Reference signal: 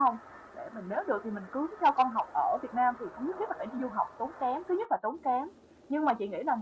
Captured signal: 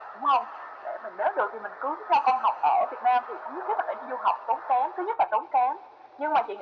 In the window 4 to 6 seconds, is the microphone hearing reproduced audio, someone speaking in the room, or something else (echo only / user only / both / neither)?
echo only